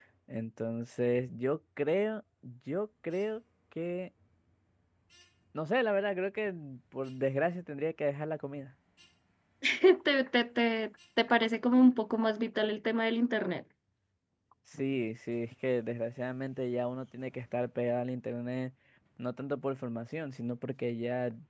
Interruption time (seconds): none

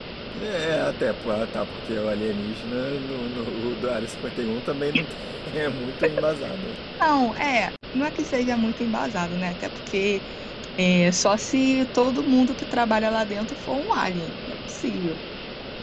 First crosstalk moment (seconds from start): none

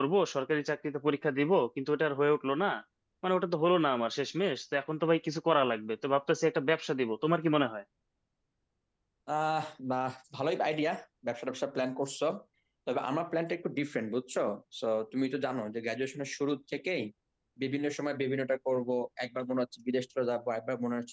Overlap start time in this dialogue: none

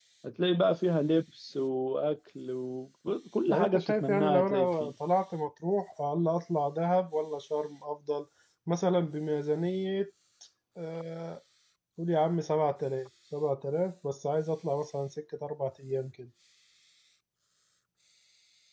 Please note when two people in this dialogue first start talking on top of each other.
3.5 s

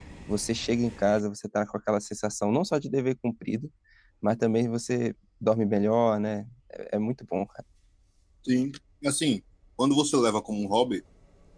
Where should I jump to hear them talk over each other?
none

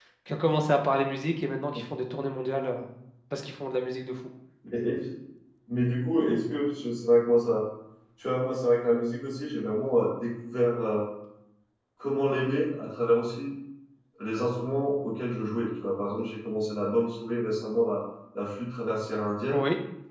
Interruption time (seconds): none

